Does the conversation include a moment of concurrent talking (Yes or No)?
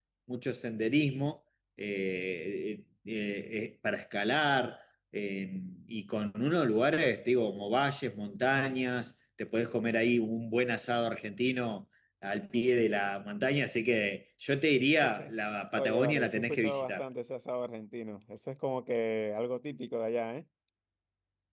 Yes